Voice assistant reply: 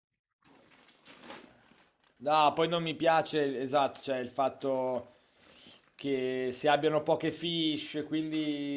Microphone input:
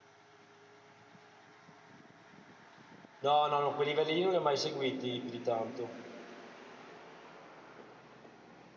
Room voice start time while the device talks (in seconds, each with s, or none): 3.2 s